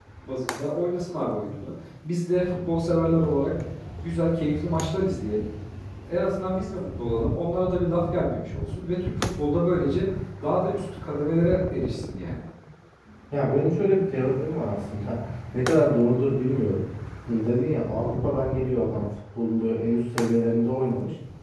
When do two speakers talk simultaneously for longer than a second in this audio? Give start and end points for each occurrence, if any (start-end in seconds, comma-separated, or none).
none